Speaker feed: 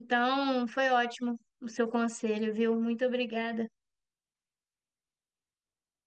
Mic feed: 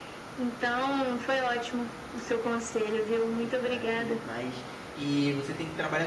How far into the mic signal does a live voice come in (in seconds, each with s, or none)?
3.2 s